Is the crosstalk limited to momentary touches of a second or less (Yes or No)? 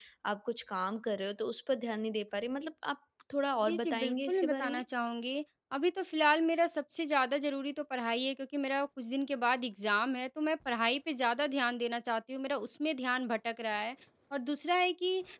No